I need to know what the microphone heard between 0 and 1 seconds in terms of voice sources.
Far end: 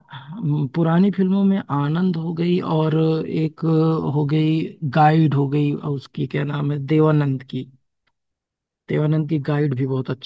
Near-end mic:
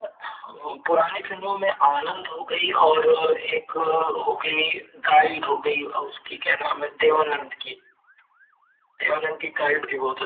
echo only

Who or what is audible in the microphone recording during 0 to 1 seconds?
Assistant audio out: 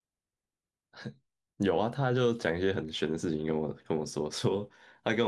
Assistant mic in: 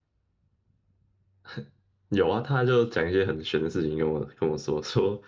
neither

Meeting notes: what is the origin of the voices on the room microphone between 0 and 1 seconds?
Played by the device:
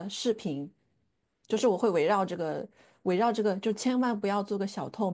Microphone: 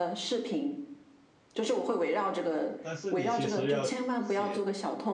echo only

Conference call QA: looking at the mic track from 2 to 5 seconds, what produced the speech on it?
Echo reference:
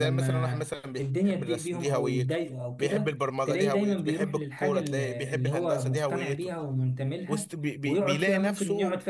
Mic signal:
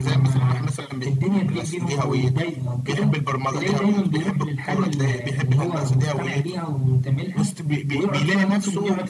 echo only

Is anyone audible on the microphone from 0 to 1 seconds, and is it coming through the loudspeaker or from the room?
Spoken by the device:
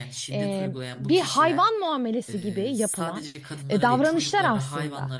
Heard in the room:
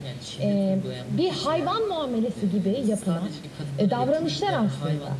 echo only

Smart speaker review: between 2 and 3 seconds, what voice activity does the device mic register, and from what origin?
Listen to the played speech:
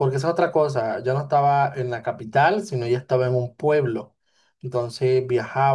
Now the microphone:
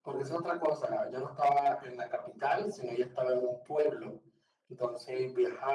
echo only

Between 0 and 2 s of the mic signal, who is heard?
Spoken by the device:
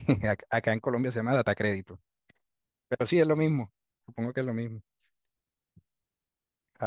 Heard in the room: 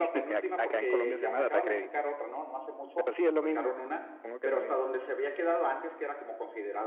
both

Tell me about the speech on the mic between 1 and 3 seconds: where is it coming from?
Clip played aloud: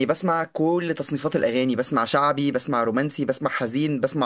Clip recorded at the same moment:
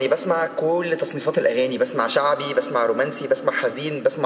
echo only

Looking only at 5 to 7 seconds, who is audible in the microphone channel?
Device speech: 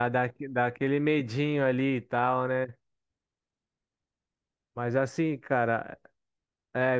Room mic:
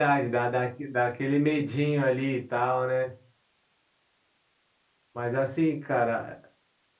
echo only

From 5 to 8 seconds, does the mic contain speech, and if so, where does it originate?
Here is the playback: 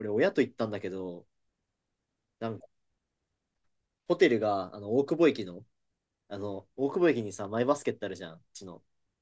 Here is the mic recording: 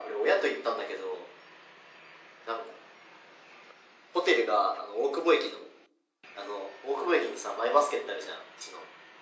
echo only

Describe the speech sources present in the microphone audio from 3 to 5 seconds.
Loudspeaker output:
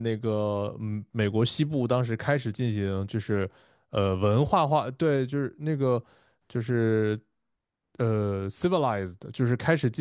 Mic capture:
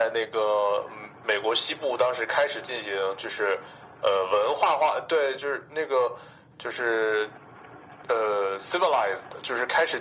echo only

